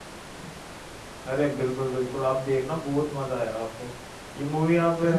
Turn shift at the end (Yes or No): No